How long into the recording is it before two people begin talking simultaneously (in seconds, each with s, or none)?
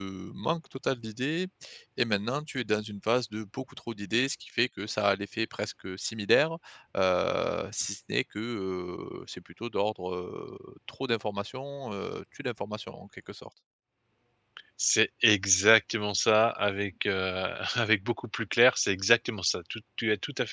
none